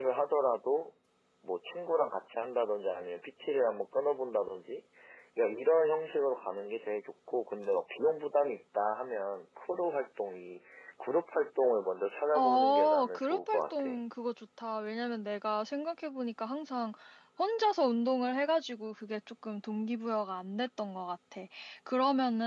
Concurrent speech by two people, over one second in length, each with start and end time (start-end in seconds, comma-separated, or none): 12.3-13.9